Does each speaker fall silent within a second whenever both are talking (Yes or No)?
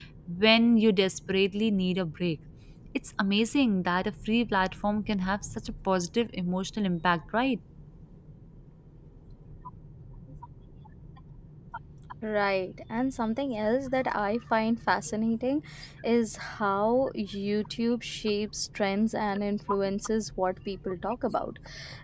Yes